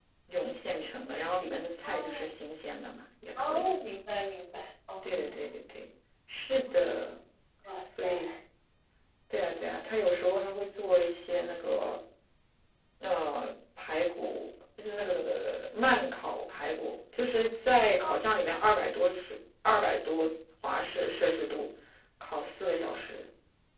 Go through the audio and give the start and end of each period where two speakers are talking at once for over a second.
none

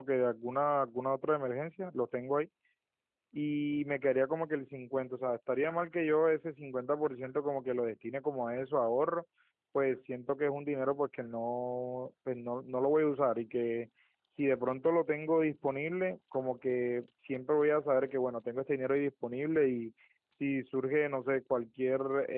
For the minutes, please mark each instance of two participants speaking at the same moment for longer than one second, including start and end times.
none

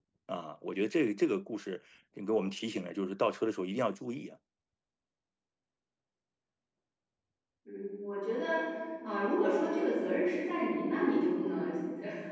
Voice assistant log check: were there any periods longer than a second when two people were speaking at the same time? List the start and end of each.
none

